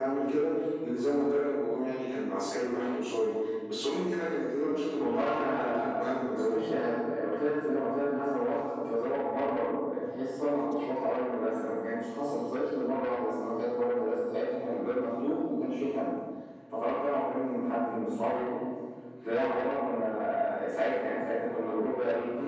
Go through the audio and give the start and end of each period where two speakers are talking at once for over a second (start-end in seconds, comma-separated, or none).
5.0-6.6